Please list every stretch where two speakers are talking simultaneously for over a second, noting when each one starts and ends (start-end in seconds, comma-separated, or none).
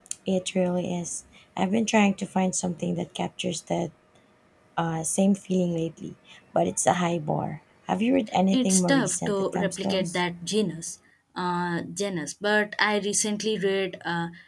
8.5-10.2